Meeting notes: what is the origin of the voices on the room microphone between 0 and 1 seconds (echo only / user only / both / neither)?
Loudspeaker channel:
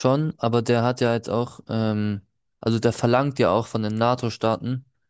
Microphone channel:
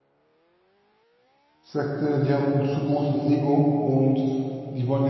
neither